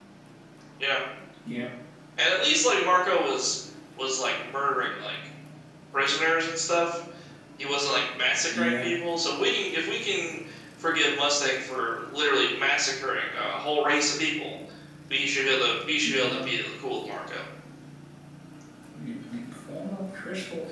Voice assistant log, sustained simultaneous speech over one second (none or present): none